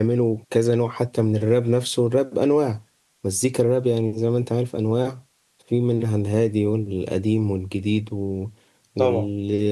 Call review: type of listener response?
listening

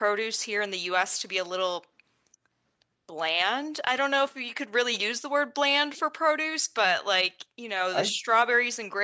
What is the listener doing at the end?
listening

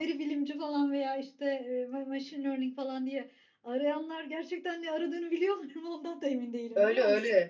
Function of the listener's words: taking over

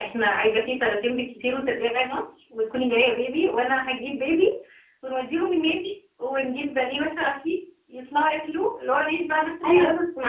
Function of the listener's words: taking over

